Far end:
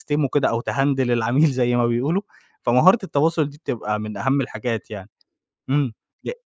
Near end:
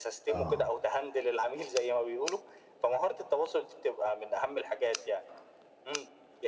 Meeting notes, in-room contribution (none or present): present